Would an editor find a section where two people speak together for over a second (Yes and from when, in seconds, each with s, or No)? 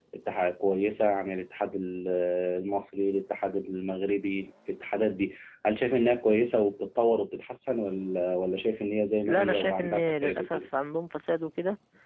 Yes, from 9.2 s